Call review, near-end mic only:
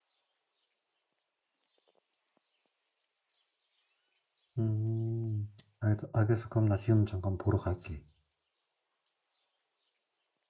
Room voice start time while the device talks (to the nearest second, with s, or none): 5 s